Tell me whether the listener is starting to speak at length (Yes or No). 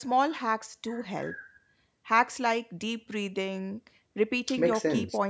No